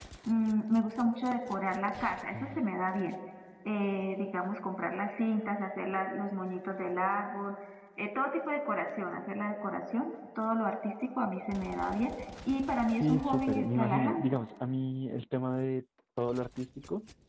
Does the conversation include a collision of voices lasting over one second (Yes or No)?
Yes